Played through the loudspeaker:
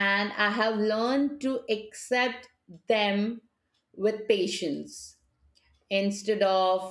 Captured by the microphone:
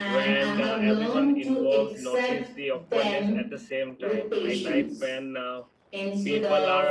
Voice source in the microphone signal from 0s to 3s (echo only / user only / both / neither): both